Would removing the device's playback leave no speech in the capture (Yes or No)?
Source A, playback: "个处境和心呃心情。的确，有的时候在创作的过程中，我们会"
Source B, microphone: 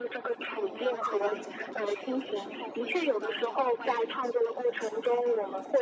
No